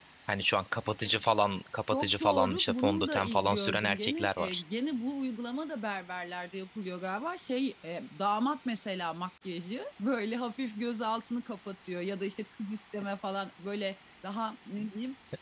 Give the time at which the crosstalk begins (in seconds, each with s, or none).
1.9 s